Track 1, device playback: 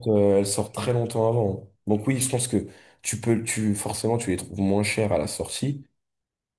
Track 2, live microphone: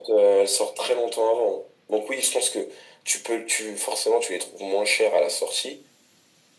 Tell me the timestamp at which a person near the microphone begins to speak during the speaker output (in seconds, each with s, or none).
none